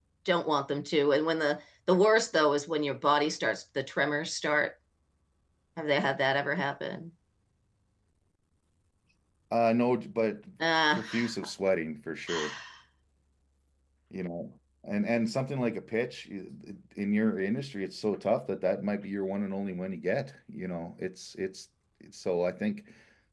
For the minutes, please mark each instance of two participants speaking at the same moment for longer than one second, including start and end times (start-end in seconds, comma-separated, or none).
none